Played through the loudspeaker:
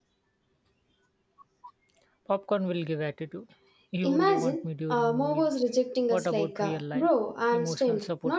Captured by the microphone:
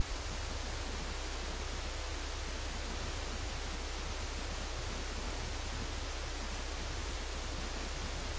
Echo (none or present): none